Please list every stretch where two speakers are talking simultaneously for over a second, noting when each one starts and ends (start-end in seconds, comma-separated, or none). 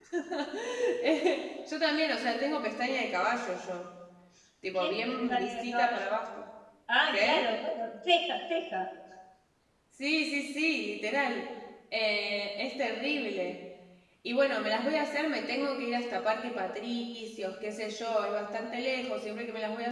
4.8-6.2